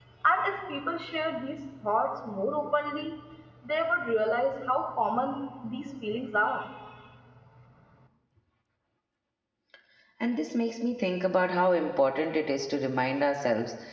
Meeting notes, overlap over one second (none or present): none